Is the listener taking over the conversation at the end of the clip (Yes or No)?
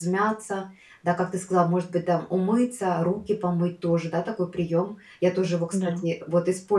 No